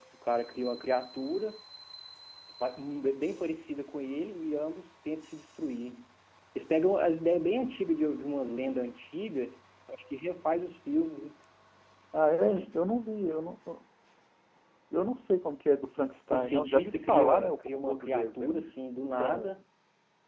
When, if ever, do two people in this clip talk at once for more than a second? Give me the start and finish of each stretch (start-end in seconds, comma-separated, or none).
16.3-18.6